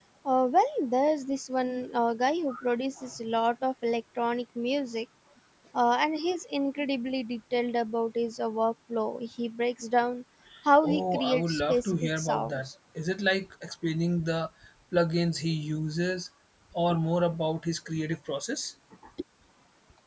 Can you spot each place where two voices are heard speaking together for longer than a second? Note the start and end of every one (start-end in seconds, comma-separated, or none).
10.8-12.7